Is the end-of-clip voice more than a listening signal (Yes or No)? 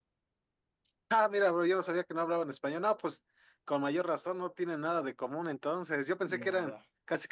No